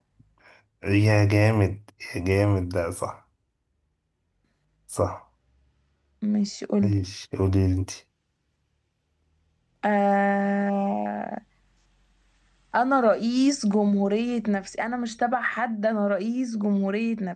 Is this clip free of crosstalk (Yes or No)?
Yes